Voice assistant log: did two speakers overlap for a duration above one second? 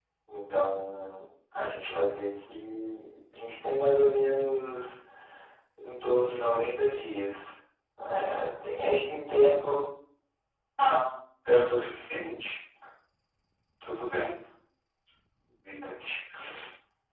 No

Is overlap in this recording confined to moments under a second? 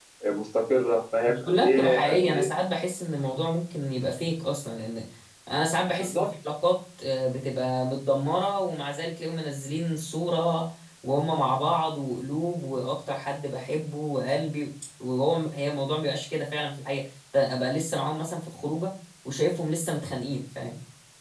No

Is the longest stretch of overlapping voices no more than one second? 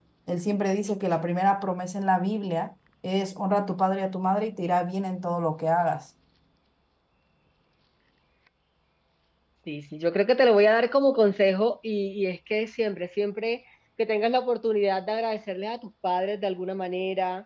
Yes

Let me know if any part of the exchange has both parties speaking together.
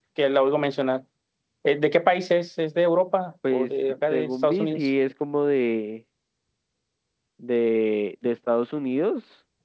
Yes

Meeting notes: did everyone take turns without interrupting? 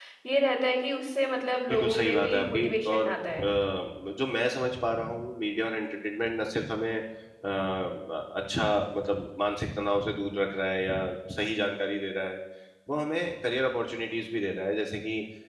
No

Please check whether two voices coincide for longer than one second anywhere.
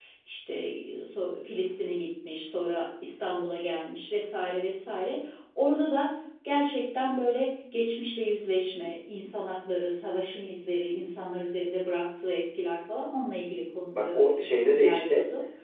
Yes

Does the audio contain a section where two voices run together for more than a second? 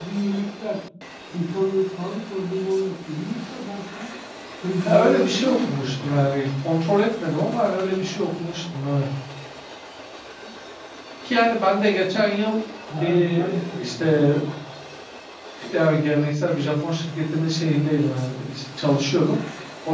Yes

